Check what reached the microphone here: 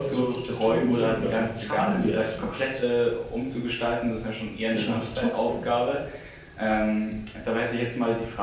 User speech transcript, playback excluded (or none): none